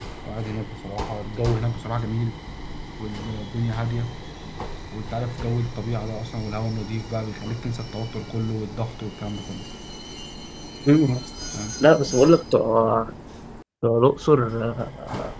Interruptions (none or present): none